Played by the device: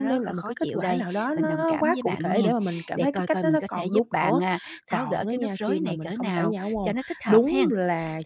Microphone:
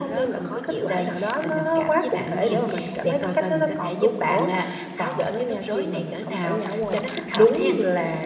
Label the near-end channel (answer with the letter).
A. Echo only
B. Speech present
A